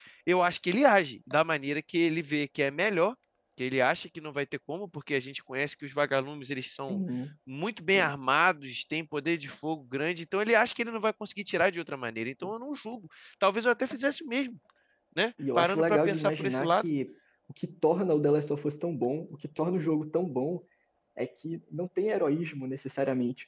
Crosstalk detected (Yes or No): Yes